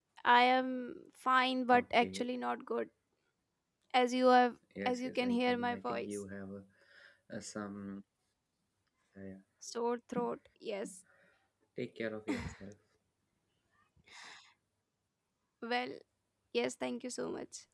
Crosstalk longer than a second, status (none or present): present